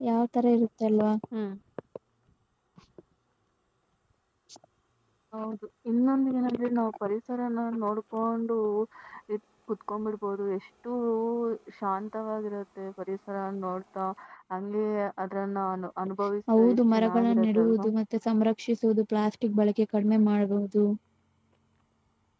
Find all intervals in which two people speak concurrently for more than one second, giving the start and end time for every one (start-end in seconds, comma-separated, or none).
16.6-17.9